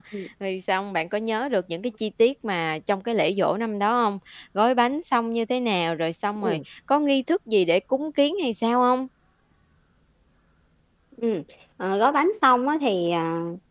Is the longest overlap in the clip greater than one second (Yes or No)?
No